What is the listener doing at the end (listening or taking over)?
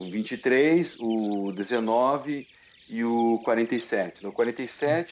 taking over